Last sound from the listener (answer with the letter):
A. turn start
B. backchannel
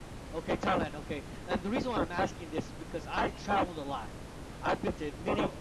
B